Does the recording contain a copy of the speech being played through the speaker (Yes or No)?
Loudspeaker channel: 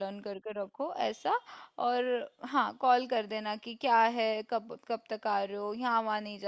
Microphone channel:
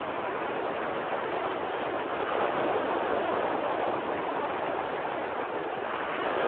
No